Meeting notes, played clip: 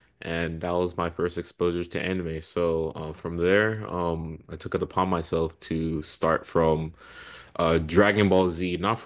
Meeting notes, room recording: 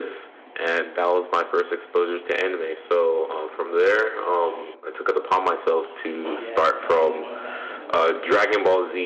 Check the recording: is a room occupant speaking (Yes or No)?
Yes